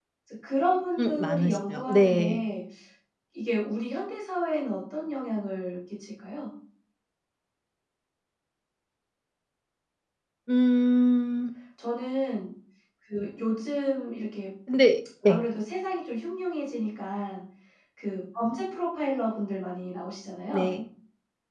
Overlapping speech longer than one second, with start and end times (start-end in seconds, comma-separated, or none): 1.0-2.4